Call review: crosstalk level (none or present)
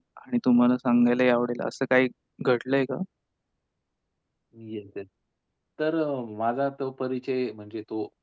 none